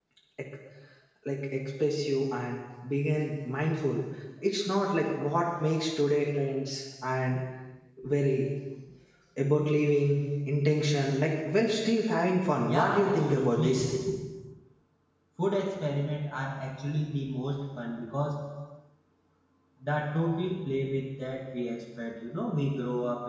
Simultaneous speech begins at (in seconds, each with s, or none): 12.7 s